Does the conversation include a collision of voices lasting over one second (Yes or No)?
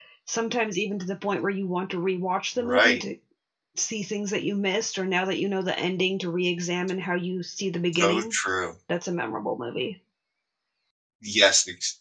No